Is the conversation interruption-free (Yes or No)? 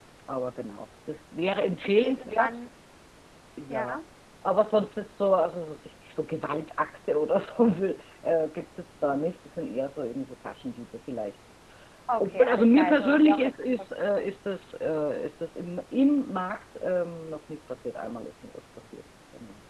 No